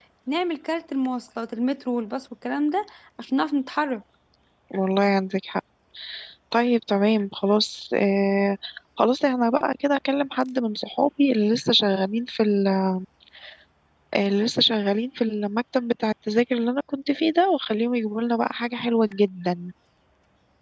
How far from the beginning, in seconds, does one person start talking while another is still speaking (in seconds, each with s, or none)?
none